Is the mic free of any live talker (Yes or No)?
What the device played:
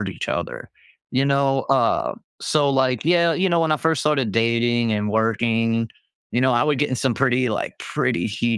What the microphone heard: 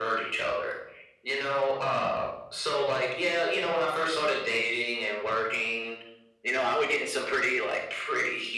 Yes